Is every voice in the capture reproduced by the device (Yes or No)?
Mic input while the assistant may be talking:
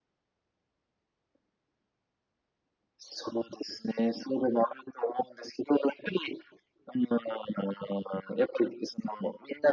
Yes